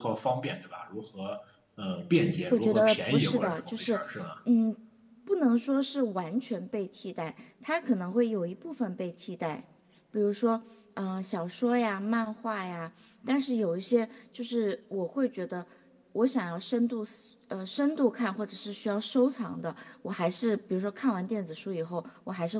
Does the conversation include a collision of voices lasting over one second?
Yes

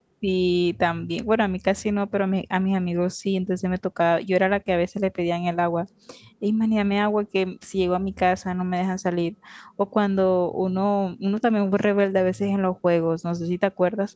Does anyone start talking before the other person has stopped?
No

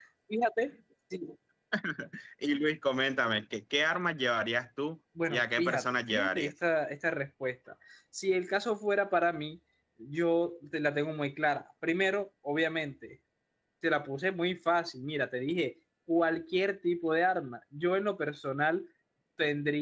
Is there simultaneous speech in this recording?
Yes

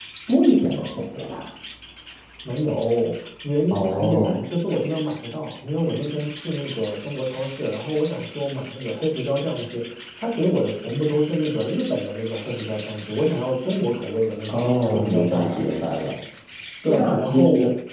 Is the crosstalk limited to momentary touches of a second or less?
No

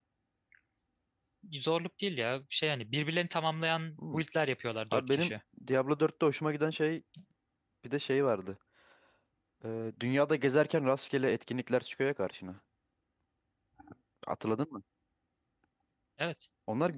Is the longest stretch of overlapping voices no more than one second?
Yes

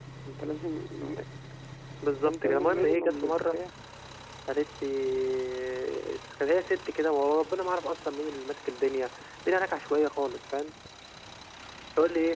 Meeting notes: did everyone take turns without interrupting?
No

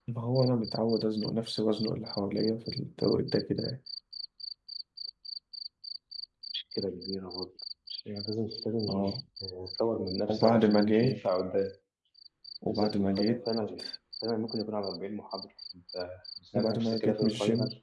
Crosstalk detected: Yes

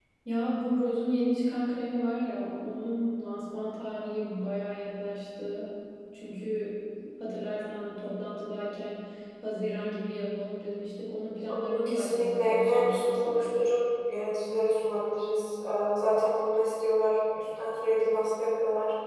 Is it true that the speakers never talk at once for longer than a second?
No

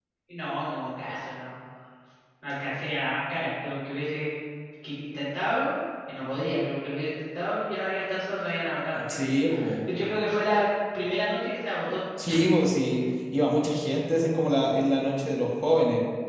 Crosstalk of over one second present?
No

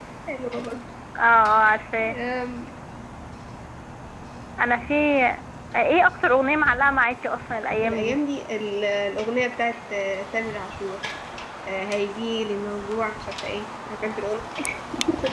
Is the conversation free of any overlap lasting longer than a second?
Yes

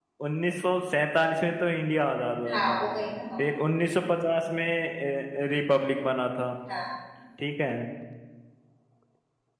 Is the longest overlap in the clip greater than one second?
No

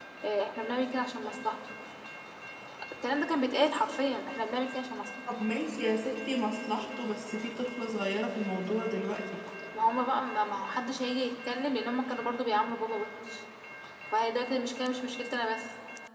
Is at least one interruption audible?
No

